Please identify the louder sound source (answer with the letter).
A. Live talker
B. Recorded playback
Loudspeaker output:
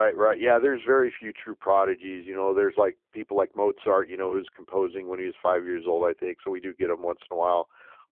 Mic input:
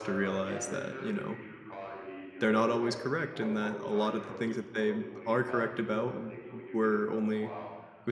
A